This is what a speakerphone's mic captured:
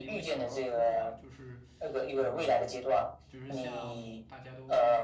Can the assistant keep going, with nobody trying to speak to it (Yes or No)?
No